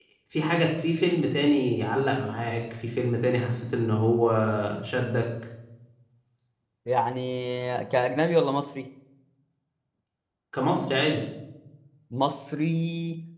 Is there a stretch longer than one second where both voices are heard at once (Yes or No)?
No